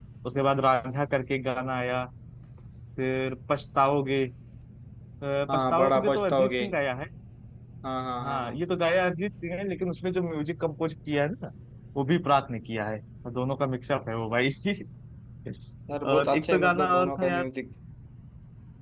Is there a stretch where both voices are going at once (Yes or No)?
Yes